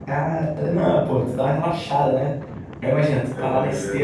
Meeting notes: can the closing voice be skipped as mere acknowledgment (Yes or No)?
Yes